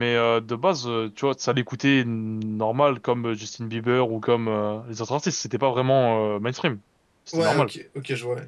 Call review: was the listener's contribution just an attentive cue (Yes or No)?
No